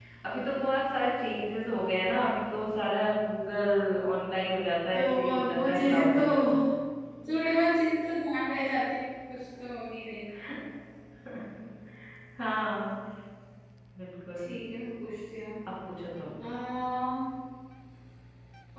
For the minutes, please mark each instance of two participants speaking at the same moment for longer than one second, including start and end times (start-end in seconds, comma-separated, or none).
4.9-6.2